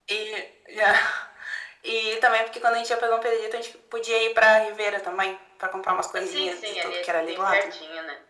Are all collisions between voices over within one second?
No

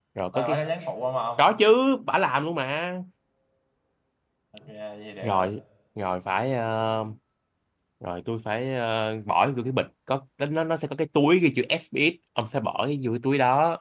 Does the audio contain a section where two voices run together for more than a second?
No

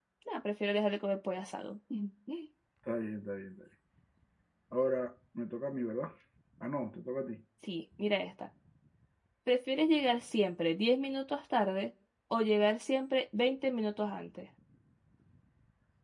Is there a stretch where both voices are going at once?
No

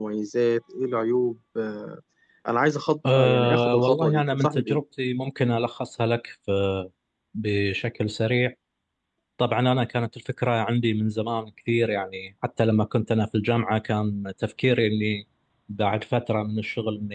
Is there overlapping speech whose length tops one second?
Yes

